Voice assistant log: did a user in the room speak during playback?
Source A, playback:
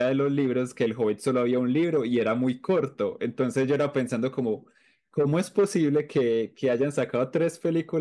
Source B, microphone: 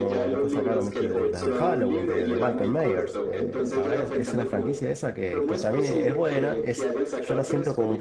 Yes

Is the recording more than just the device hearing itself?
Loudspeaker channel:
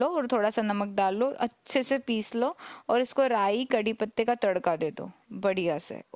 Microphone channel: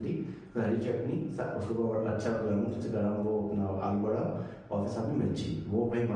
Yes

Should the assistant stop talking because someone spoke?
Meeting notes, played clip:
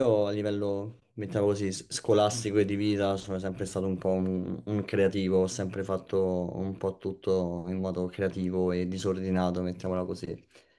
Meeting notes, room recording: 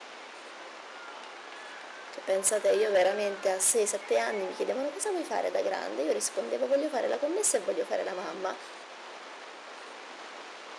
Yes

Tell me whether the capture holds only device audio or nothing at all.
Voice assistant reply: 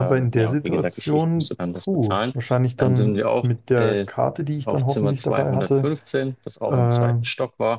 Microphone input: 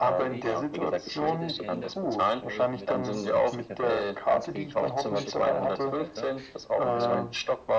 No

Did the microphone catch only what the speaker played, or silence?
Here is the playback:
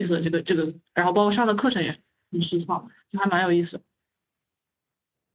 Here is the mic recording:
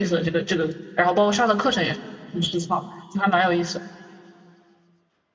Yes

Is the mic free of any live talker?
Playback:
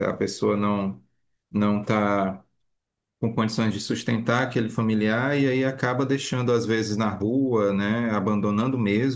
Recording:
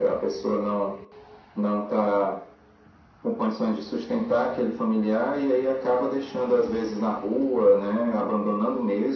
Yes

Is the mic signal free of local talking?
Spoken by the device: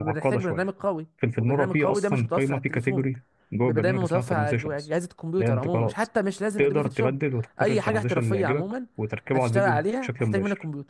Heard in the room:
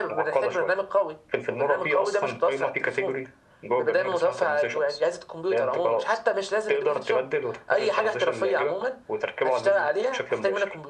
Yes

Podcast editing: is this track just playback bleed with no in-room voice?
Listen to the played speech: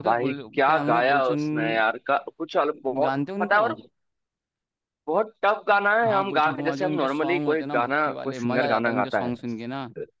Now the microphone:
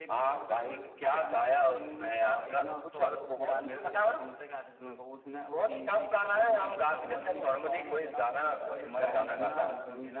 No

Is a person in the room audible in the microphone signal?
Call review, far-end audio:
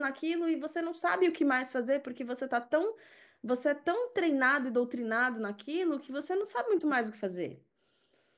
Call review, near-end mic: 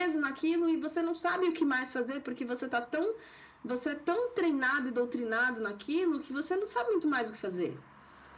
No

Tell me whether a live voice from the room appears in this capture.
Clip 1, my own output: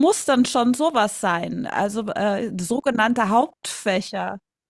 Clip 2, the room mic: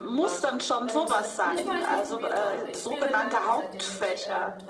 Yes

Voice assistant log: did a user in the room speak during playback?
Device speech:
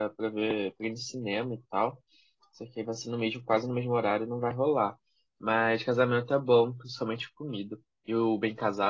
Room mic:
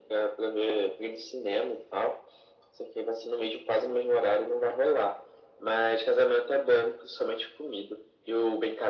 No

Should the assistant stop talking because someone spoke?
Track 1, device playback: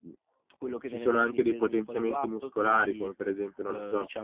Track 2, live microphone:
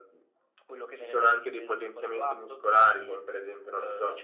No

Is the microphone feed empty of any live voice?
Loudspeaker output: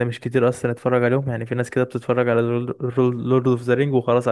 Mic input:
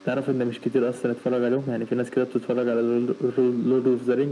Yes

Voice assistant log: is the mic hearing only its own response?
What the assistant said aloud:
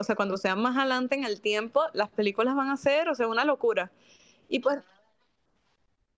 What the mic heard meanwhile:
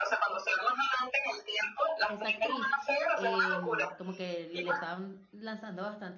No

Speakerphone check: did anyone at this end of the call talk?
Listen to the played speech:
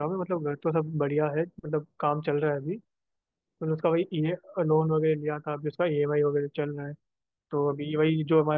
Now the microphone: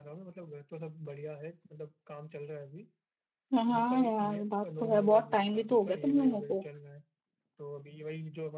Yes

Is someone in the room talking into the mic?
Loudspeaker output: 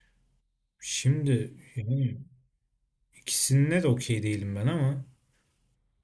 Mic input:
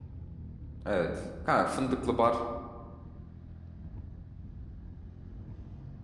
Yes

